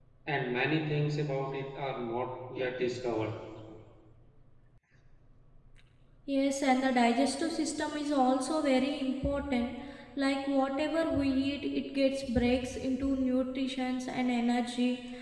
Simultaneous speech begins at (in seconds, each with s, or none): none